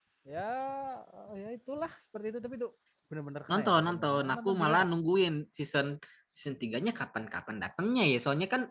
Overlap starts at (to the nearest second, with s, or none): 3 s